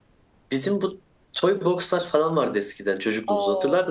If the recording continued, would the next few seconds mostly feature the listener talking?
Yes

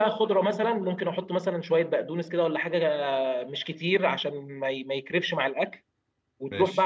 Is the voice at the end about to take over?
No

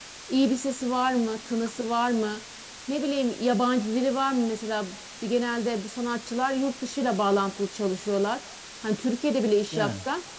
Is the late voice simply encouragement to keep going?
Yes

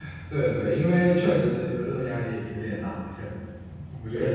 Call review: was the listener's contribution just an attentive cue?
No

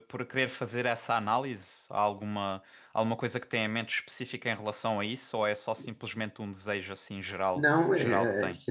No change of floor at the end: No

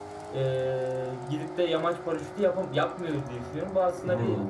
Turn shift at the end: No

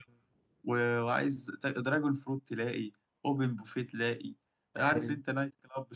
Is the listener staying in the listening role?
Yes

